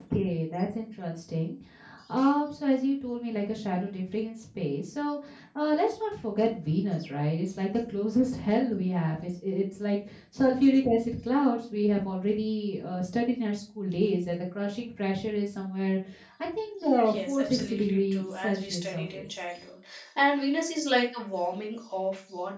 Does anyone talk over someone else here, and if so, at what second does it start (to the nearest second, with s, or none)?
17 s